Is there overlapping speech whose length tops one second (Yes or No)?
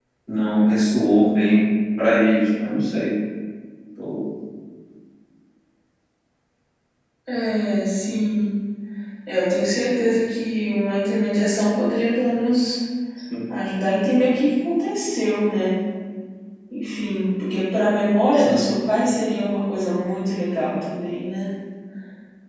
No